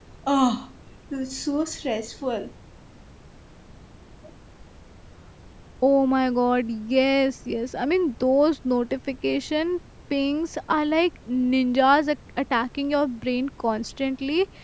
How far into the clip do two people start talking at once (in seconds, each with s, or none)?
none